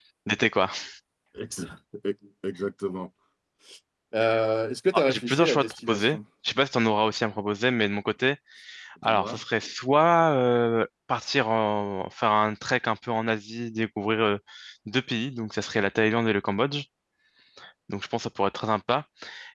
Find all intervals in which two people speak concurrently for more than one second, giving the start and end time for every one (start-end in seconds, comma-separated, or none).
4.9-6.2